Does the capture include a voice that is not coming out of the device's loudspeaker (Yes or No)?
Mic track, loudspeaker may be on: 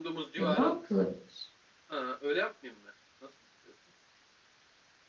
Yes